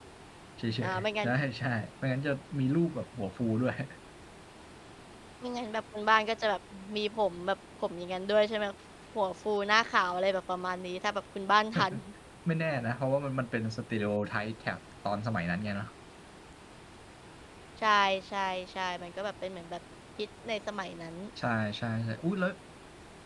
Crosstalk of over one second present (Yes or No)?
No